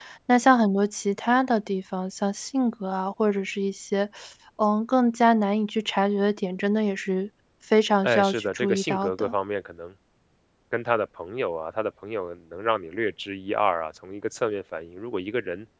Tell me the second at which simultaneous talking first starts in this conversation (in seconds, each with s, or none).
8.0 s